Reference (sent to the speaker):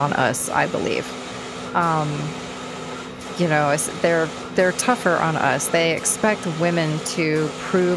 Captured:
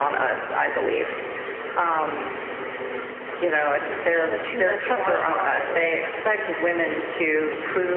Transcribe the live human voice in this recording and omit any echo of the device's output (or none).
you know too much about it on